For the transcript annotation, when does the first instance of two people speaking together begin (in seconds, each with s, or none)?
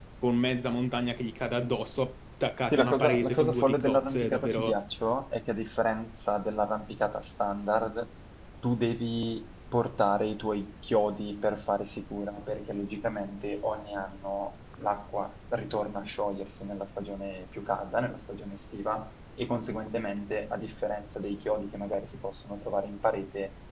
2.7 s